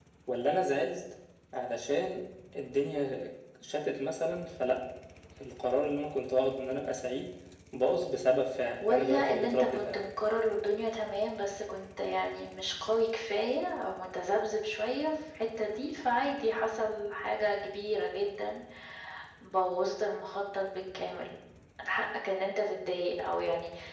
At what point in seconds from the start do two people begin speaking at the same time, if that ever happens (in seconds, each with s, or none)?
8.7 s